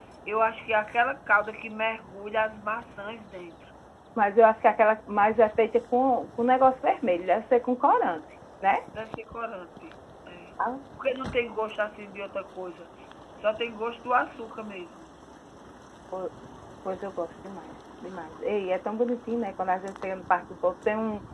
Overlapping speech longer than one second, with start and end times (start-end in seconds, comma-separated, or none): none